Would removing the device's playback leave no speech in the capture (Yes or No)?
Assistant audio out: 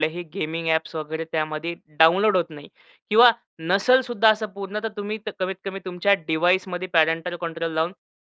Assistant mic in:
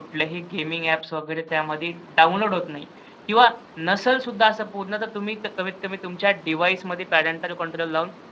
Yes